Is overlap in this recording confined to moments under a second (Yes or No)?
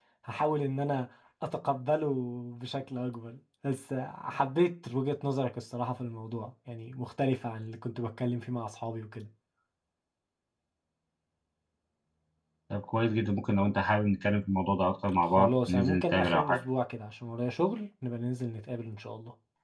No